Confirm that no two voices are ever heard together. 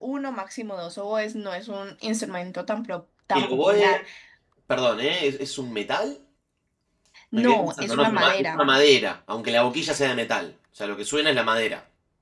No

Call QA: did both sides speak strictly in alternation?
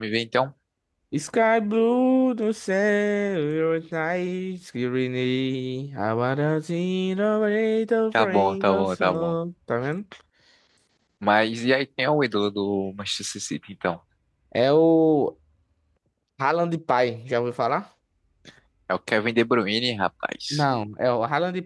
No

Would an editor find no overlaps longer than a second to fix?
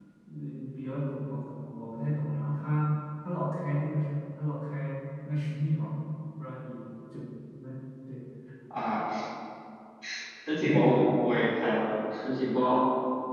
Yes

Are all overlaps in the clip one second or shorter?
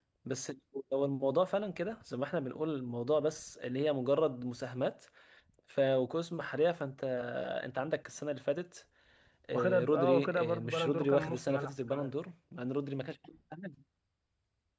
No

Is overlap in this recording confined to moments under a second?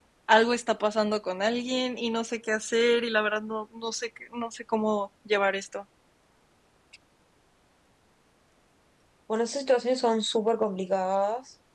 Yes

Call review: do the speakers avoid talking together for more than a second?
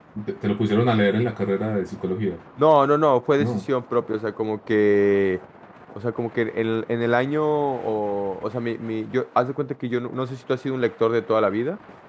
Yes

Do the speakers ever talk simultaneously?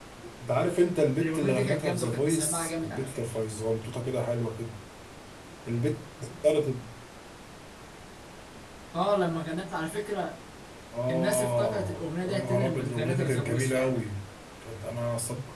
Yes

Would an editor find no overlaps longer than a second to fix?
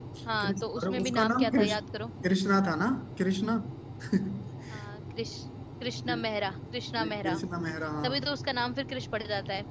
No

